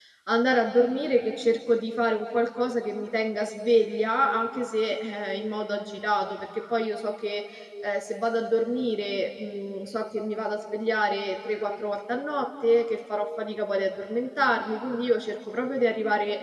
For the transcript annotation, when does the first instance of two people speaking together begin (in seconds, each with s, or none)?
none